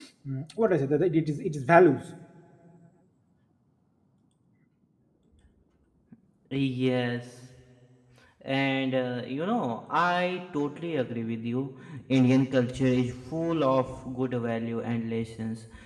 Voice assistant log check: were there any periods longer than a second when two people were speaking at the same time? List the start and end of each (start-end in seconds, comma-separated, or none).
none